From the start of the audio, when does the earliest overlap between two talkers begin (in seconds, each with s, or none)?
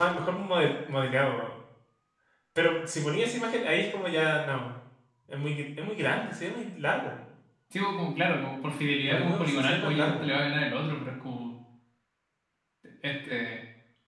9.1 s